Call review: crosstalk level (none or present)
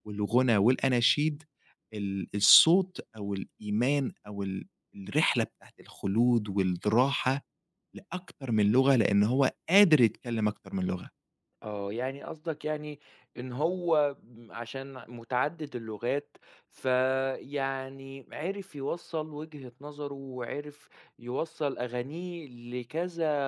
none